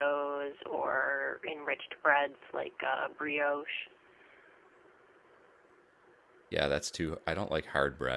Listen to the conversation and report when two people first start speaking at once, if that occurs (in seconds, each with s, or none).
none